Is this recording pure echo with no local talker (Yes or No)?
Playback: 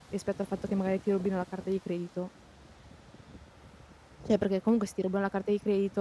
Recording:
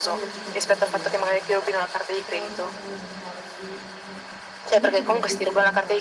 No